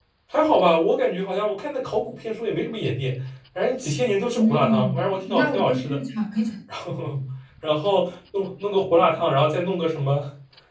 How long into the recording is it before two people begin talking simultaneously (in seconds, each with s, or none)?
4.3 s